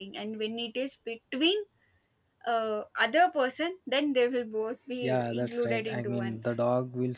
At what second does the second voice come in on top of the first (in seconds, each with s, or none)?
5.0 s